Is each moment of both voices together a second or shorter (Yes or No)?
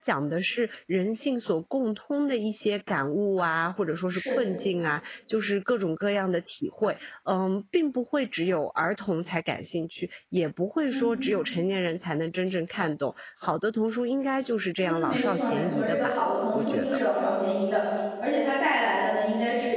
No